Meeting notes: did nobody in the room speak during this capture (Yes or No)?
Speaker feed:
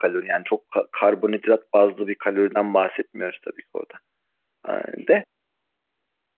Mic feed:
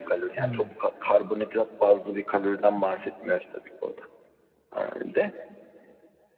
No